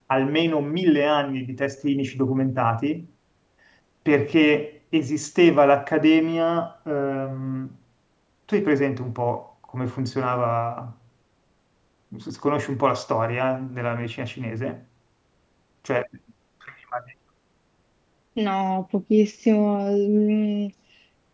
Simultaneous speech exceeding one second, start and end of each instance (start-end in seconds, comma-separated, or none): none